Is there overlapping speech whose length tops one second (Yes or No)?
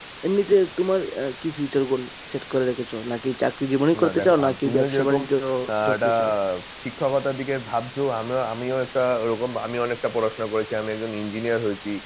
Yes